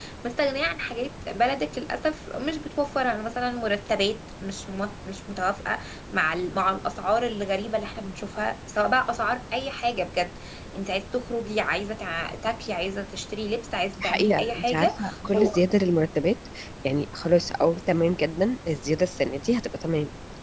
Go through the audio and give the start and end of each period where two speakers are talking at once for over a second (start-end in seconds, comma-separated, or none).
14.0-15.6